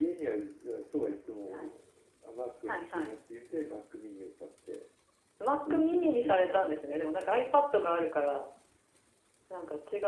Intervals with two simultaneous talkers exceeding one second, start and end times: 5.7-7.4

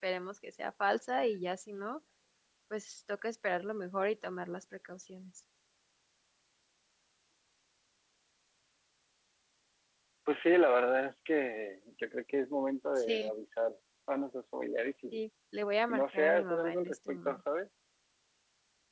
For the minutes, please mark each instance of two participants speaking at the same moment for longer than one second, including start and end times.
15.9-17.4

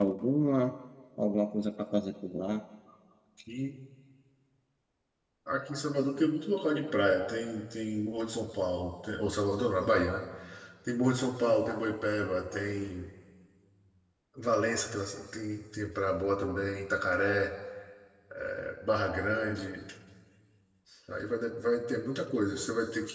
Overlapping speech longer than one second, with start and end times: none

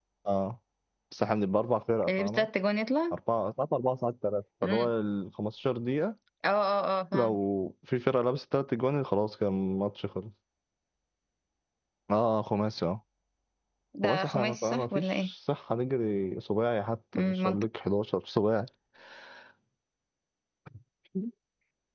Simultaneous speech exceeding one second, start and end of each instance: 14.1-15.3

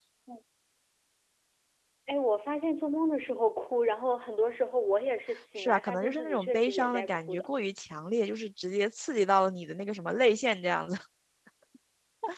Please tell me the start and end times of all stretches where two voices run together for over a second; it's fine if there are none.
5.6-7.5

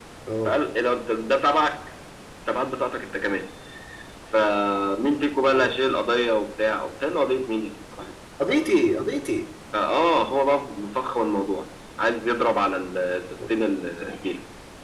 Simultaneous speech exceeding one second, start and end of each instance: none

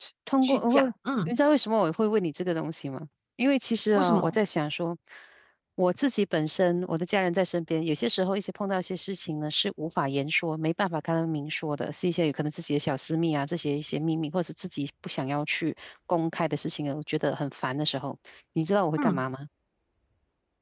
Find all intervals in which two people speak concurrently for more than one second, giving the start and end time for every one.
none

